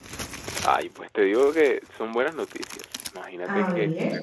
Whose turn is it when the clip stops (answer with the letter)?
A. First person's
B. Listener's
A